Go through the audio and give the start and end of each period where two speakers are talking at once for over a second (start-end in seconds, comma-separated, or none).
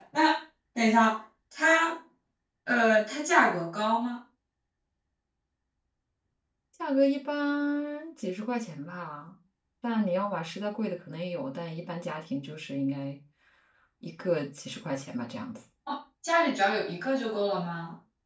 none